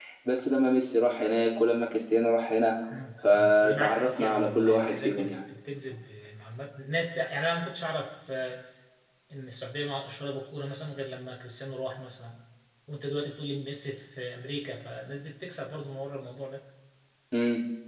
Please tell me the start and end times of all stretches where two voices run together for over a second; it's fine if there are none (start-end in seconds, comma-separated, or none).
3.3-5.4